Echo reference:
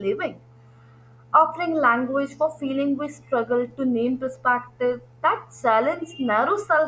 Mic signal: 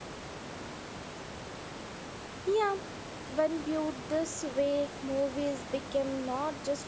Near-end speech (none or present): present